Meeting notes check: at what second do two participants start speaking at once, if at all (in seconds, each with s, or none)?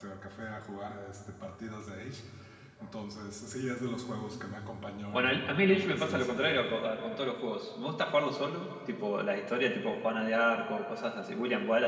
5.1 s